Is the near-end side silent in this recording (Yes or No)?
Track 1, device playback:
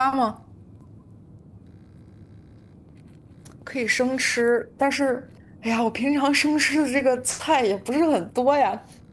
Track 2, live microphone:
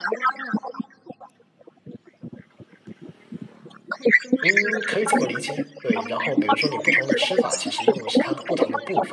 No